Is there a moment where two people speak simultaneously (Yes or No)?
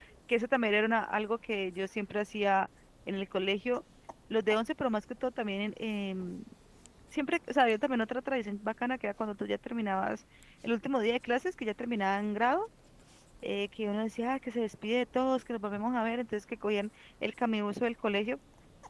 No